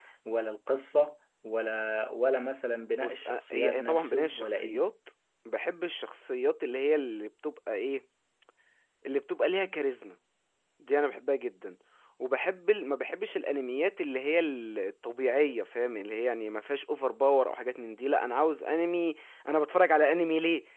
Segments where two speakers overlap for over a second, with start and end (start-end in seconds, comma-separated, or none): 2.9-4.8